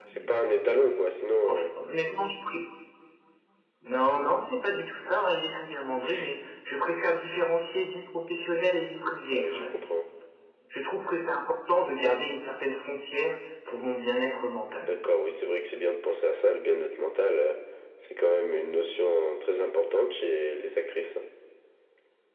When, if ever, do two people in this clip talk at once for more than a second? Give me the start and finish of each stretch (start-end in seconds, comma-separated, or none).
none